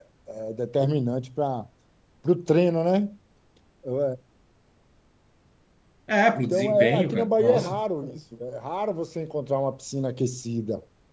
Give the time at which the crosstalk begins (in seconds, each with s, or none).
6.4 s